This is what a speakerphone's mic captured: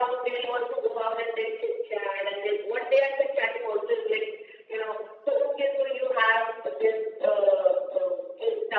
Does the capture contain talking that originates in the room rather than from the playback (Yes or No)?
No